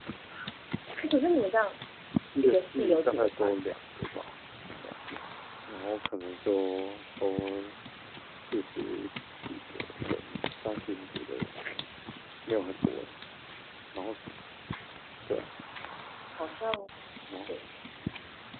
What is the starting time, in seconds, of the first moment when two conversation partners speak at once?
2.4 s

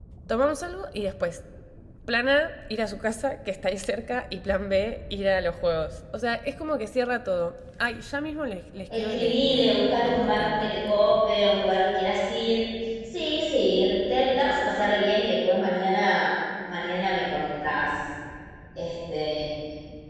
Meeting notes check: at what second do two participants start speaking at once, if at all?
8.9 s

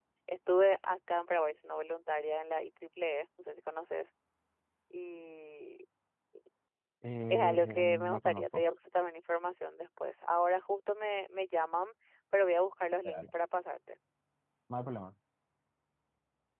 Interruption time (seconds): 7.3 s

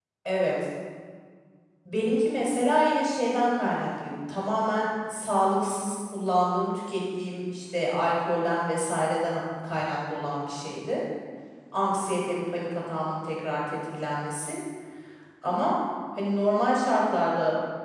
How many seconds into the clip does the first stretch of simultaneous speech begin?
none

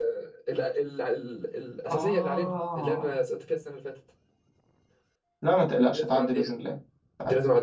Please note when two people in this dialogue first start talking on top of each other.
1.9 s

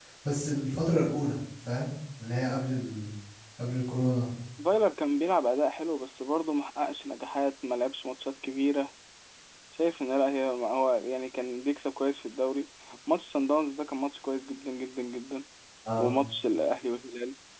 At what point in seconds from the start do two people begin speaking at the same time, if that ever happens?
none

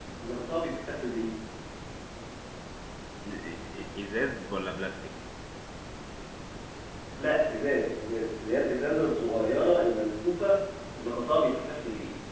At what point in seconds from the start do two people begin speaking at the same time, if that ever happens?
none

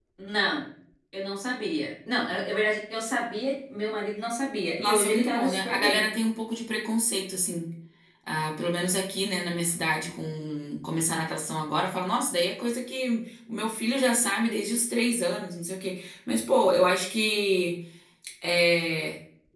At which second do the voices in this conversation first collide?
4.8 s

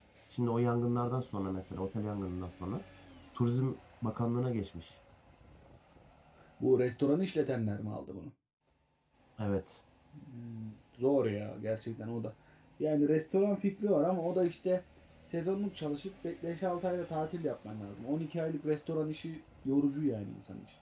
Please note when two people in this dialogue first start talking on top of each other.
none

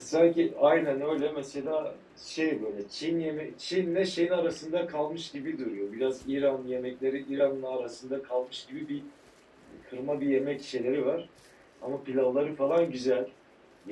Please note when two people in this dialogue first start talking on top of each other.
none

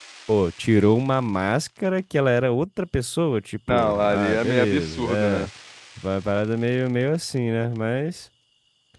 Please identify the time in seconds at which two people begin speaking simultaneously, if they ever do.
3.7 s

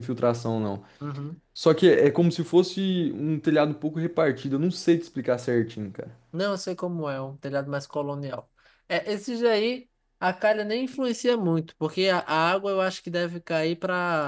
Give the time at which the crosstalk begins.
none

